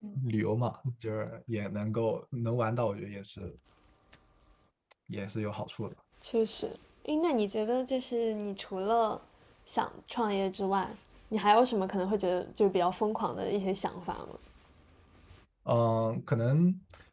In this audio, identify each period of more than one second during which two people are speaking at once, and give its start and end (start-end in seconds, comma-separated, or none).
none